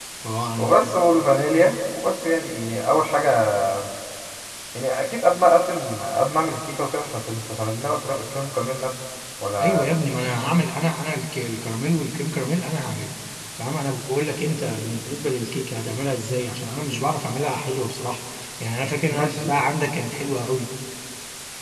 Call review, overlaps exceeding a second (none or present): none